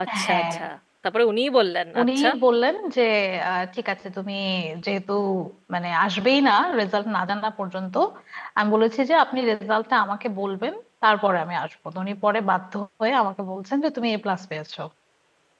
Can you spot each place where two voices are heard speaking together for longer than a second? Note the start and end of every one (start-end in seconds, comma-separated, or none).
none